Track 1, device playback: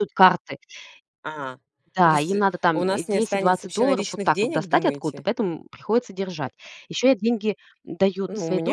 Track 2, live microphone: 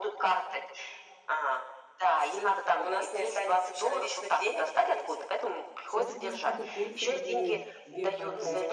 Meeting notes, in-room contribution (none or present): present